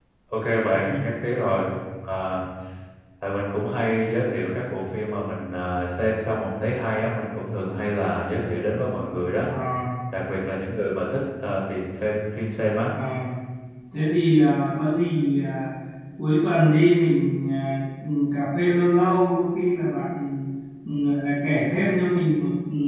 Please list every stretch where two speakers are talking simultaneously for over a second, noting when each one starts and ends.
none

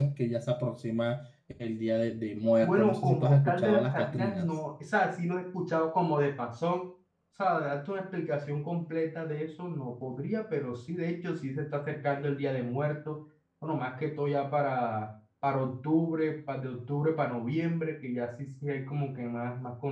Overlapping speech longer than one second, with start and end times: 2.6-4.5

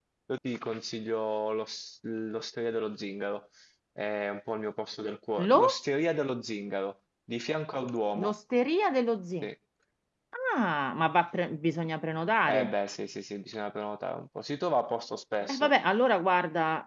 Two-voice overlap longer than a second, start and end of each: none

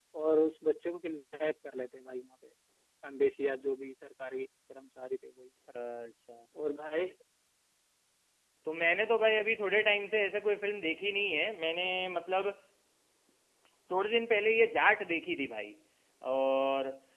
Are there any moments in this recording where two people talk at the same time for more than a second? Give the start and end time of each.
none

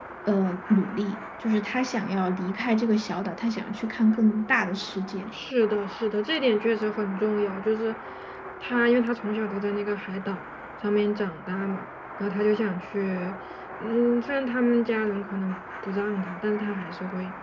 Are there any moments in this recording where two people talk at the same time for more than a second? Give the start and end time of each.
none

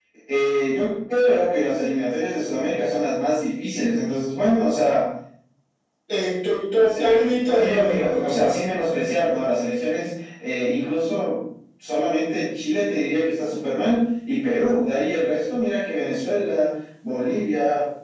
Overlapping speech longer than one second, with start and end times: 6.8-8.1

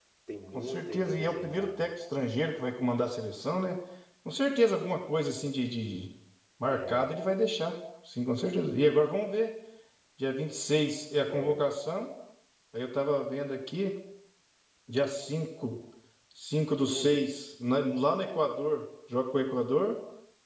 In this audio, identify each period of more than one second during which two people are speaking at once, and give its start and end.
0.5-1.9

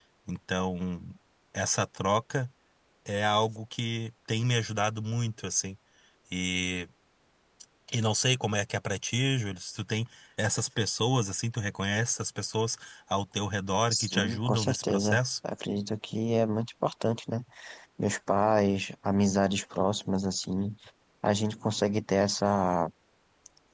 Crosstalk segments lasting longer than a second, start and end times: 13.9-15.2

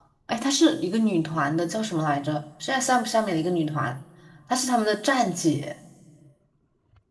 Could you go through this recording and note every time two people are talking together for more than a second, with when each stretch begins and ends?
none

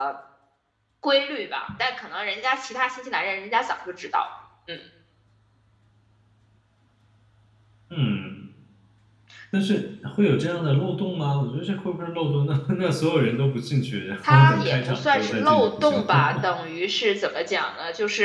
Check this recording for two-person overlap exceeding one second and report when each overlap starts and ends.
14.3-16.3

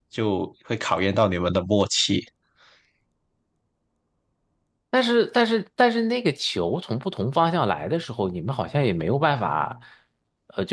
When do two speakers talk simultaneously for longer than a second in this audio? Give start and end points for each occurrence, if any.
none

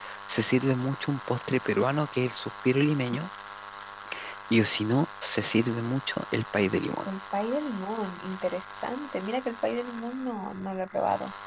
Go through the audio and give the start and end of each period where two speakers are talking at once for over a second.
none

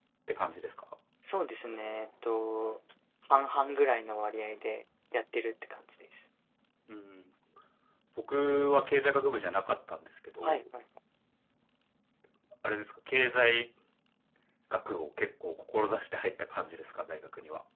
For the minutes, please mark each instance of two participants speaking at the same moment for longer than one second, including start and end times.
none

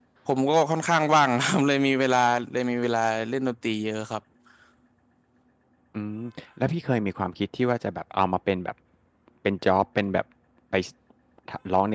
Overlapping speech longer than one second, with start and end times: none

